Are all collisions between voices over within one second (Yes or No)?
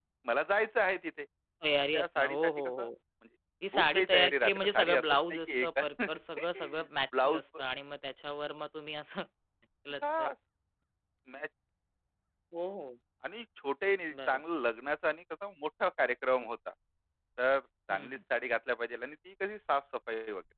No